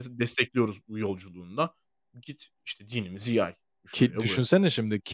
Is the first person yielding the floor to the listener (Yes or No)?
Yes